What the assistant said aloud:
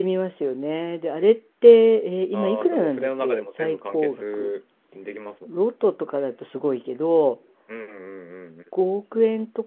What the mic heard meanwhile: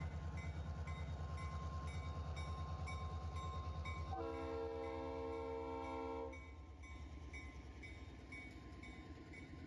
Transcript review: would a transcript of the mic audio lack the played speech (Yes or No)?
Yes